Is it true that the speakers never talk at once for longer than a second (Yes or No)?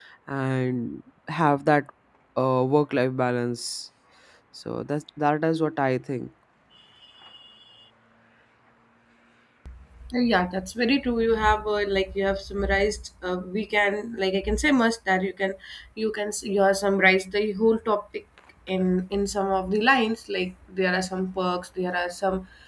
Yes